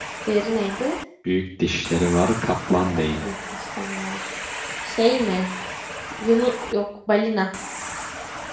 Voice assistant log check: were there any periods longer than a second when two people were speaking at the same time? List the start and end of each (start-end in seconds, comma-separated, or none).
none